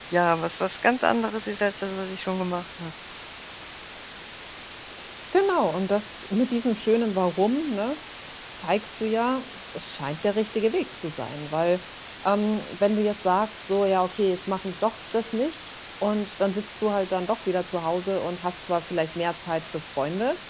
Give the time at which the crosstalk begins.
none

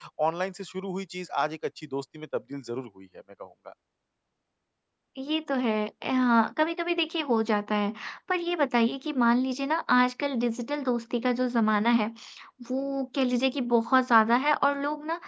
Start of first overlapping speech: none

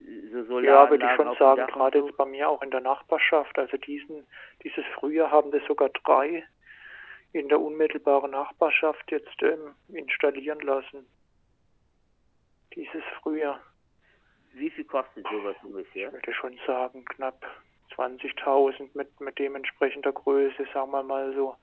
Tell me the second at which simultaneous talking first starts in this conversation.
0.6 s

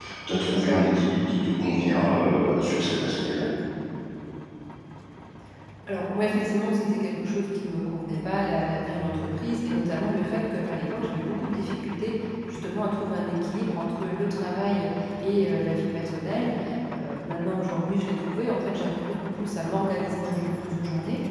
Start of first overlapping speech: none

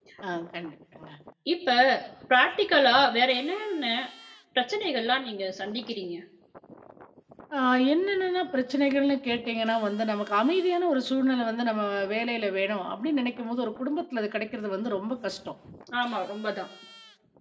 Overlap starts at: none

